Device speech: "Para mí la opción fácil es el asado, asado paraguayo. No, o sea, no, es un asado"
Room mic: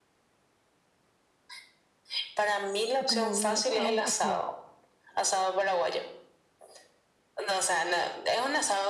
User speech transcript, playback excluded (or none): Como una, ah, ok,